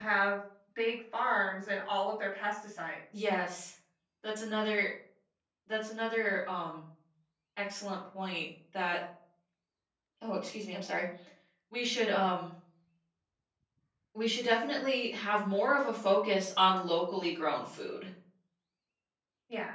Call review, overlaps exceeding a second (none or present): none